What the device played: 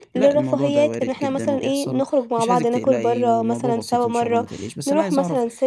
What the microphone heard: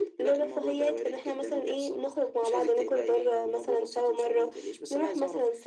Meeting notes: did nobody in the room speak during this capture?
Yes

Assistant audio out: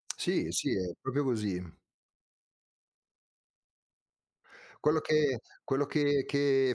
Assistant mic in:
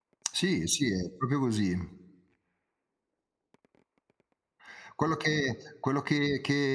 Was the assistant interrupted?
No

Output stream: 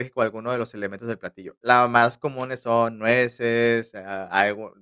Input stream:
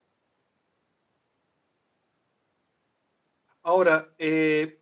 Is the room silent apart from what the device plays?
No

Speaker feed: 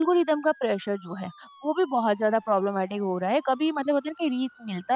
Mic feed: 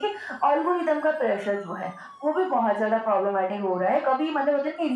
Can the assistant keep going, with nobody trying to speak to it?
Yes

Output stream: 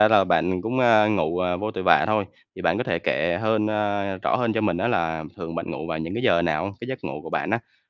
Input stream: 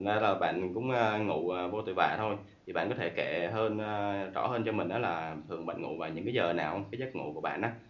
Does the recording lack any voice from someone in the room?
Yes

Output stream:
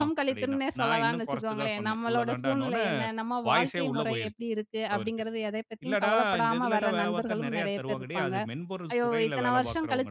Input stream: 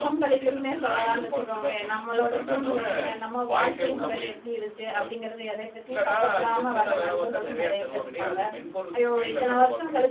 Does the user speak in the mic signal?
Yes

